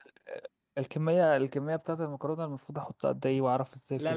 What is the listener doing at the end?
taking over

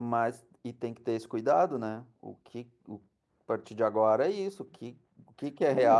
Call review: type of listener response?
taking over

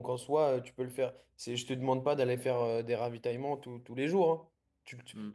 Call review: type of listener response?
listening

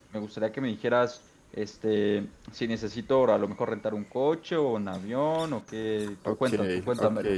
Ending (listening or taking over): taking over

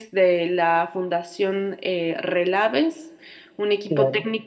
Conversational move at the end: listening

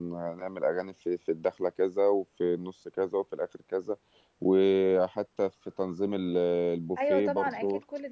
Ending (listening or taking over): taking over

